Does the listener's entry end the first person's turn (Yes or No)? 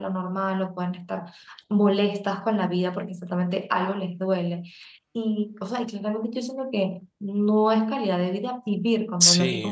Yes